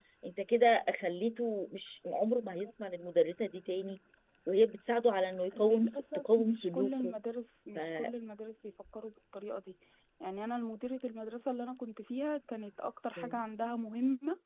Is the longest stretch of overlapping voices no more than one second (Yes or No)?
No